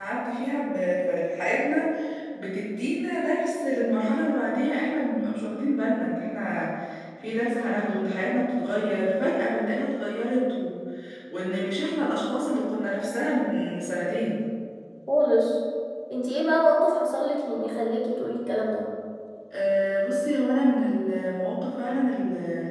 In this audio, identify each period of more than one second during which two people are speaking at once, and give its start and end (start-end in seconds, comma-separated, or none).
none